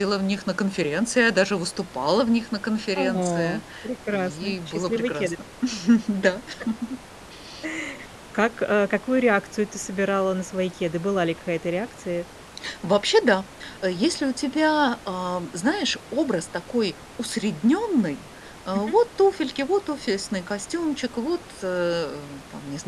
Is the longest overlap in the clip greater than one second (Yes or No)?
Yes